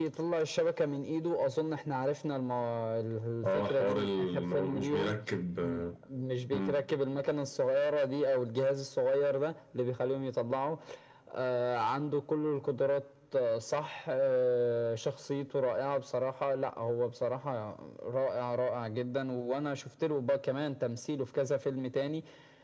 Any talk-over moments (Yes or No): Yes